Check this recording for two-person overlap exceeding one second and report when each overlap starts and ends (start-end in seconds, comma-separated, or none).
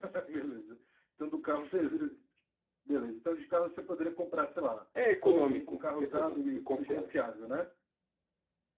5.1-7.1